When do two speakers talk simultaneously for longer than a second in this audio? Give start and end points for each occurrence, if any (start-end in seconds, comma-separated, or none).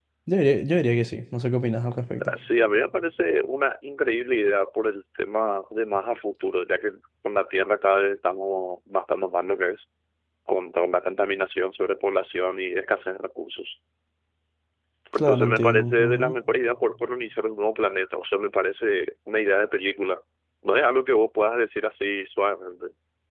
15.1-16.4